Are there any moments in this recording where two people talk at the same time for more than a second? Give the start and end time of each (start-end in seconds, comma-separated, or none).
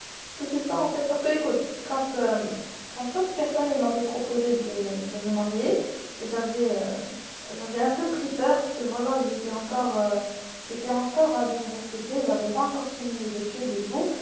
none